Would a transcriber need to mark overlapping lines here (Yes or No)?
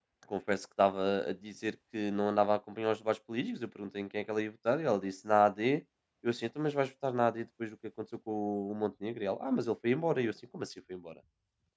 No